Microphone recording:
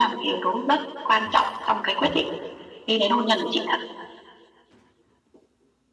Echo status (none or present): present